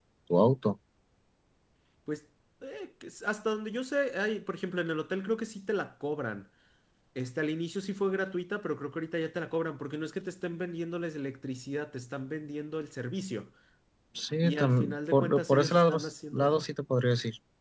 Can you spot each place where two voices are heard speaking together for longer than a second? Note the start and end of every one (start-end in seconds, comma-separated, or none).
14.4-15.9